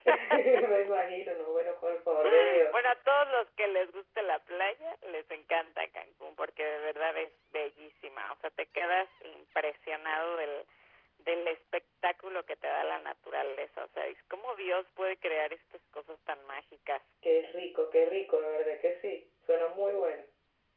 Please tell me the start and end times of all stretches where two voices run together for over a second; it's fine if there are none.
none

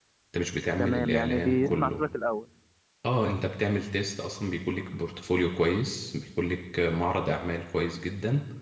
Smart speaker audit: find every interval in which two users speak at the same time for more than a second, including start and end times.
0.8-2.0

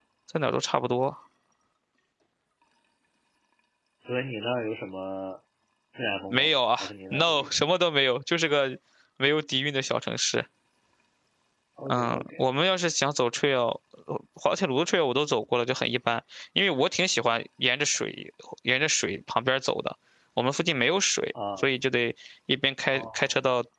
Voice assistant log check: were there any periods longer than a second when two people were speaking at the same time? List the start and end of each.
6.3-7.5

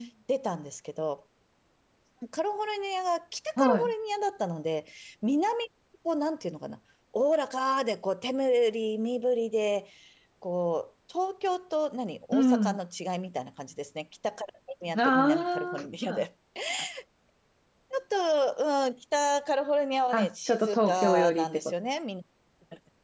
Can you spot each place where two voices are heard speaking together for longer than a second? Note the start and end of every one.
14.9-16.2, 20.1-21.7

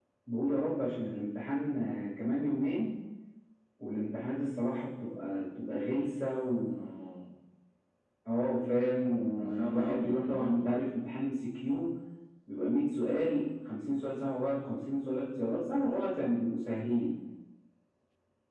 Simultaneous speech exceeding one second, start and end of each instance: 9.4-10.7

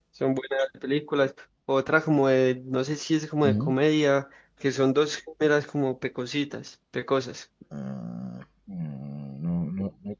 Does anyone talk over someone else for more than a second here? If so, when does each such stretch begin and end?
none

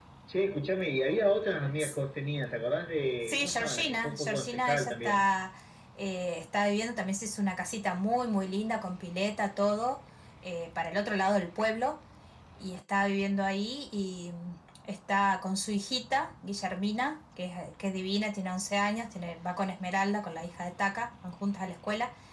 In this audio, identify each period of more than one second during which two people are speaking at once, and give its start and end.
3.2-5.3

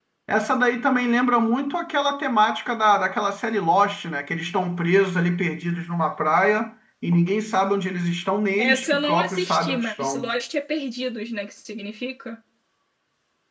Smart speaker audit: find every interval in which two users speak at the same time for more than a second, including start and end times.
8.6-10.3

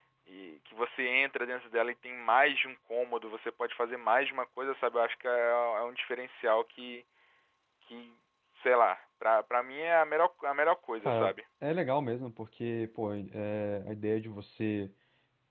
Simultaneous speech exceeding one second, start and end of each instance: none

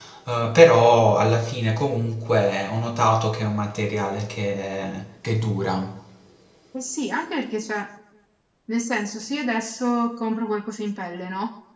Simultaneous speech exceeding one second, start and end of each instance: none

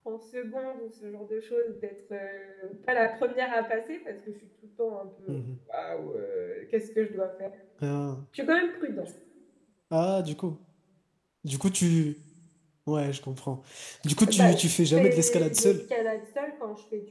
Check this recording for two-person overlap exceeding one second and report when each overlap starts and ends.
14.3-15.8

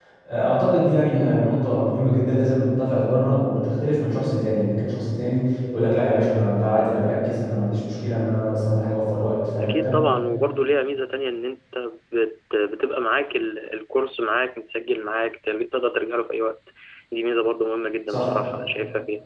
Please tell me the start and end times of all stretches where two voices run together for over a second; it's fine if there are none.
none

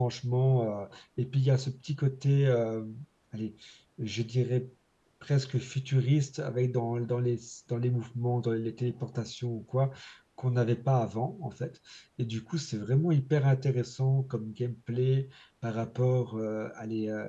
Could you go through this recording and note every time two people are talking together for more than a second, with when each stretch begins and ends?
none

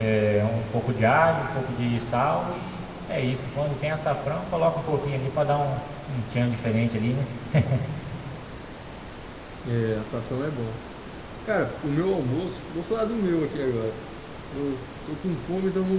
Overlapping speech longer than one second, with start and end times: none

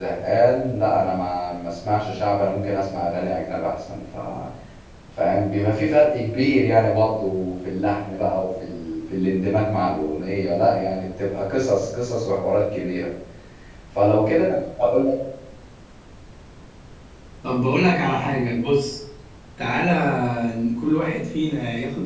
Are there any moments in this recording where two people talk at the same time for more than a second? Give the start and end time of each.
none

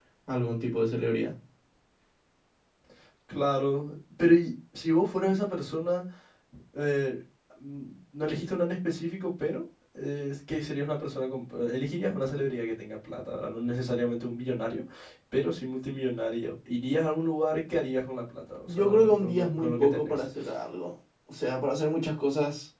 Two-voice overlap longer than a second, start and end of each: 18.7-20.3

